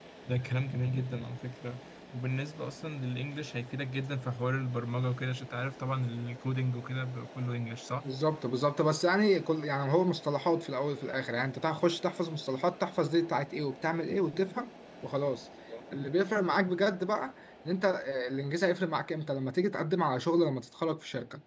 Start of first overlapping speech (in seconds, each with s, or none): none